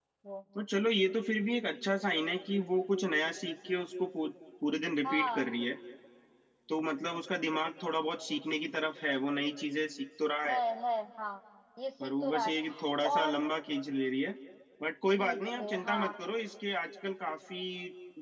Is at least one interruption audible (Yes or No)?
Yes